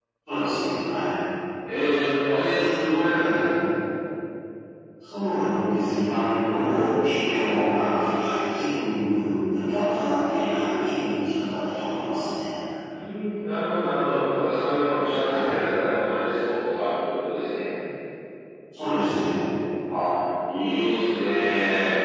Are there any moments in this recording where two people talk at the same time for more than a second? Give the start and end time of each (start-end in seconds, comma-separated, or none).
none